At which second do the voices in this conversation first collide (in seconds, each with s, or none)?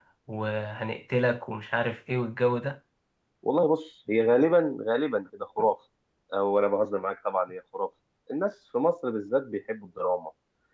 none